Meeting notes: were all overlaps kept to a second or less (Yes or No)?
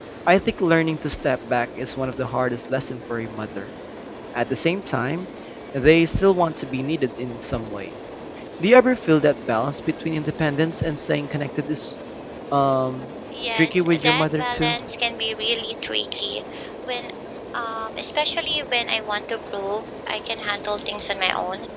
No